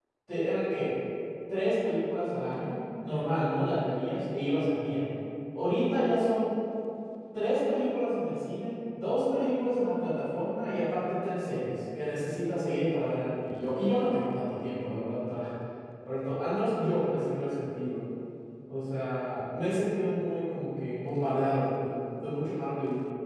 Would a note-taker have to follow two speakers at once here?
No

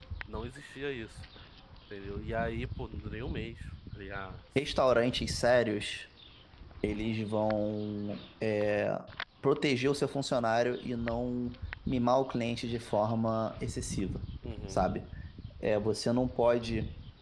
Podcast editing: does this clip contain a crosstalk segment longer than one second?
No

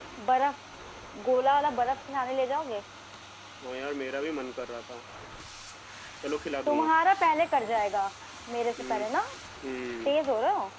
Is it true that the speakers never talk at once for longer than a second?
Yes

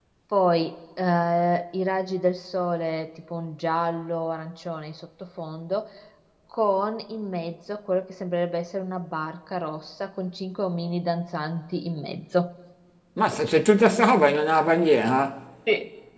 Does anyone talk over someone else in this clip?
No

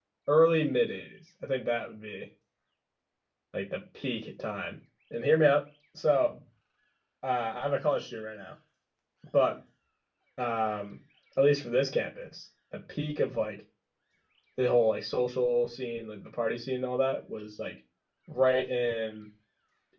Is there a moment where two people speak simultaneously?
No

